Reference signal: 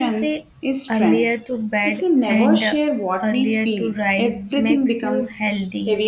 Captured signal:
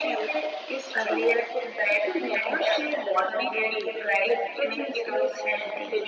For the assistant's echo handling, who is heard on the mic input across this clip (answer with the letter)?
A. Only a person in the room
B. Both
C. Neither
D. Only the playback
D